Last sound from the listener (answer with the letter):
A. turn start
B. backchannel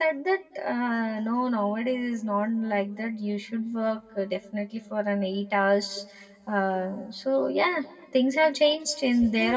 A